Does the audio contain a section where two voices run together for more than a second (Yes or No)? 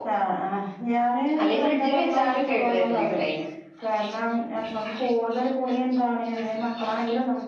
Yes